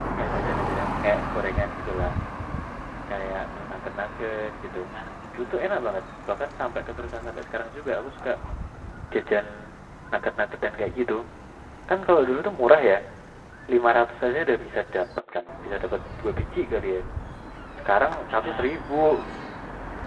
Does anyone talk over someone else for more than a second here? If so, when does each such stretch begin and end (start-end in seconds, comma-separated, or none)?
none